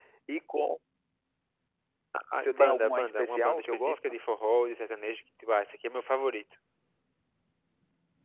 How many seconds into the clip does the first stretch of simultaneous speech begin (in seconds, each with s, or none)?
2.4 s